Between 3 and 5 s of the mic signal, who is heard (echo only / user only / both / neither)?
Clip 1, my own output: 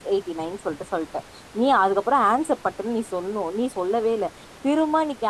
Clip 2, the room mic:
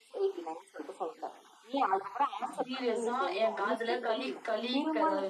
both